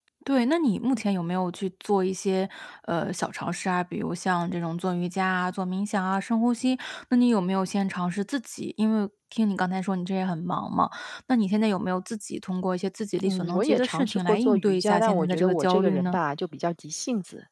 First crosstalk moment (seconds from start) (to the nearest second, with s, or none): 13 s